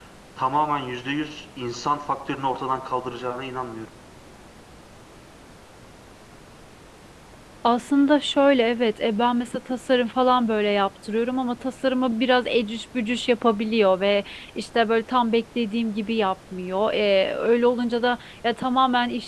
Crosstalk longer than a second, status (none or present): none